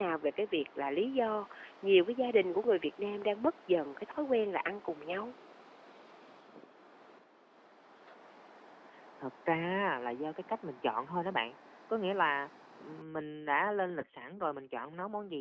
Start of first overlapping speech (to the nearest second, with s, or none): none